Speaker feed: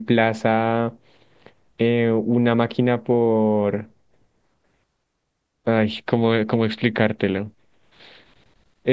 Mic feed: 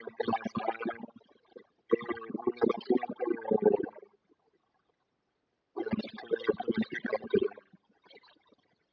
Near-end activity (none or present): none